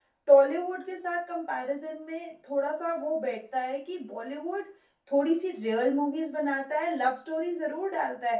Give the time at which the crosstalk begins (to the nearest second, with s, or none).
none